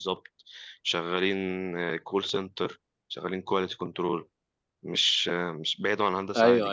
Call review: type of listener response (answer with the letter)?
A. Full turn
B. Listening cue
A